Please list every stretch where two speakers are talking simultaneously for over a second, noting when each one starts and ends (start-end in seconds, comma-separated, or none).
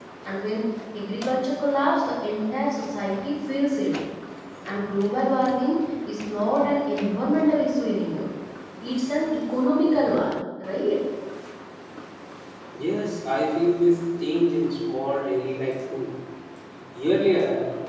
none